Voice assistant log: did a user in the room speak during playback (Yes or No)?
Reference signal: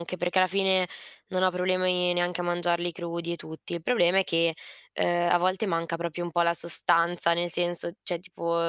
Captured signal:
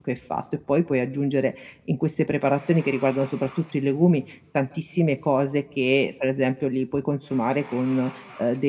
Yes